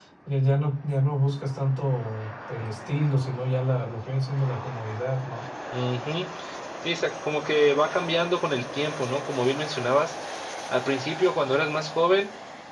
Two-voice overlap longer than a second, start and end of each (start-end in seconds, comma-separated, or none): none